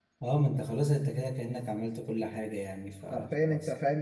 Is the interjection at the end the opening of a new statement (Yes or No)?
Yes